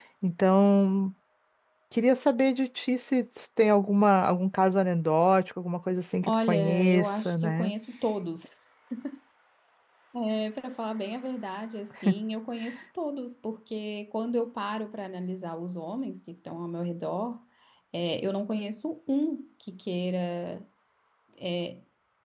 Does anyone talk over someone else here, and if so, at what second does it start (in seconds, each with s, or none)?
6.2 s